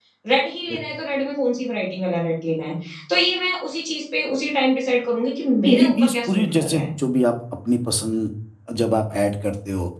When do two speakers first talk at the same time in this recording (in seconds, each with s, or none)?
5.6 s